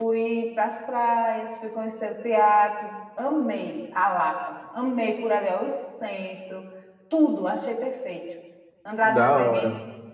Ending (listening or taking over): taking over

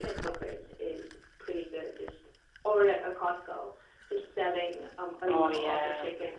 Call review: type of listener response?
listening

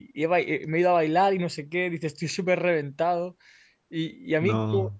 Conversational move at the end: listening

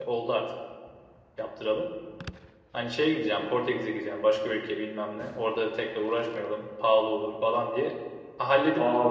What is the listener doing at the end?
taking over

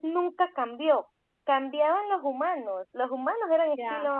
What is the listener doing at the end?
taking over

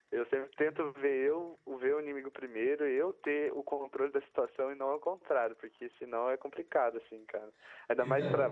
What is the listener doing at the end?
taking over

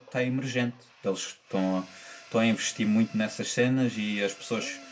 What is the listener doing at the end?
listening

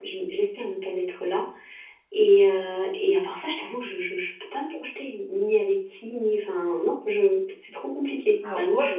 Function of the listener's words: taking over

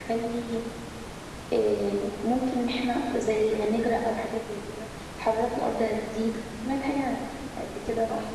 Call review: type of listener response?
taking over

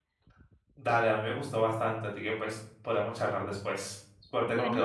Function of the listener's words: taking over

